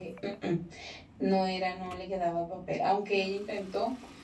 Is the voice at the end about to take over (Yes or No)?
No